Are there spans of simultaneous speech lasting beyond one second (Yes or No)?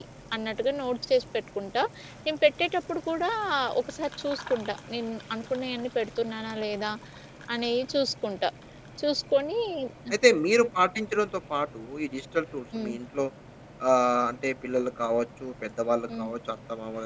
No